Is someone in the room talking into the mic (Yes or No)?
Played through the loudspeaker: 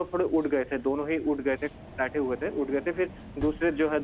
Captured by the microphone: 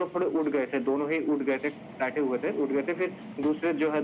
No